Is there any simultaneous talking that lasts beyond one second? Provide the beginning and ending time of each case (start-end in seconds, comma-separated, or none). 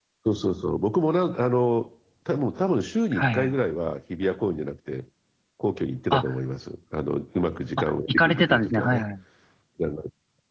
7.8-9.0